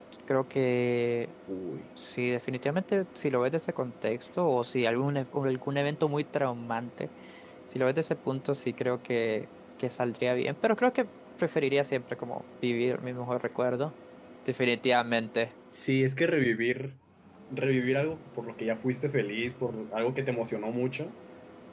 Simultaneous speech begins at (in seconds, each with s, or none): none